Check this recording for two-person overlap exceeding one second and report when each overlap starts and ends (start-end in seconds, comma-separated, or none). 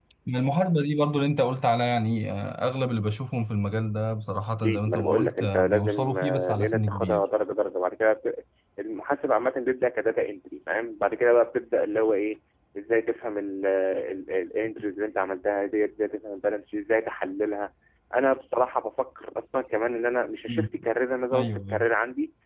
4.6-7.2